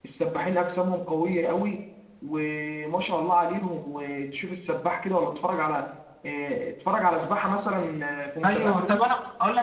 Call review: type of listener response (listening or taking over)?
taking over